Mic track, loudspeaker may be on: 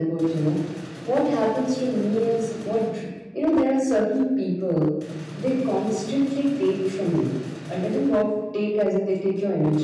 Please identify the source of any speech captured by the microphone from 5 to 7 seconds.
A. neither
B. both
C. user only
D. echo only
D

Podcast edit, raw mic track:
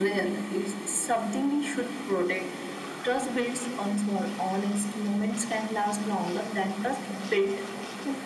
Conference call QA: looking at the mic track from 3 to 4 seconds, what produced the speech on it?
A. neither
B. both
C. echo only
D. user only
C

